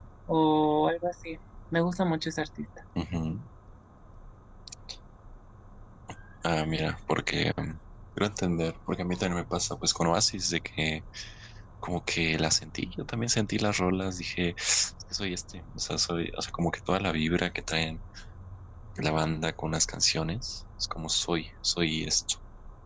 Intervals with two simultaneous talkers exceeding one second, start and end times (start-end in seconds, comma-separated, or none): none